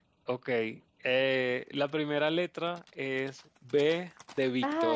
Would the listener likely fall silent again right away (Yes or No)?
No